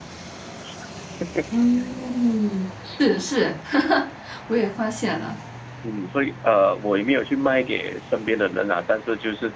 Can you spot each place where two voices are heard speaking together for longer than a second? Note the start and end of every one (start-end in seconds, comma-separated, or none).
none